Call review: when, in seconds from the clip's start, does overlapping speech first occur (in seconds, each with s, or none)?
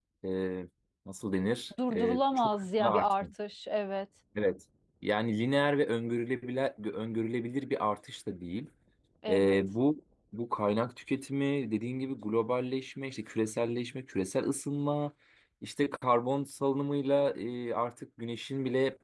1.9 s